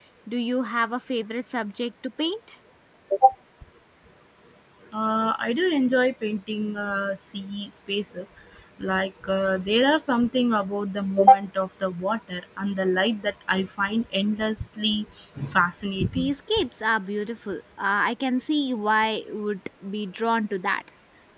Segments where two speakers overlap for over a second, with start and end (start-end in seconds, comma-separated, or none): none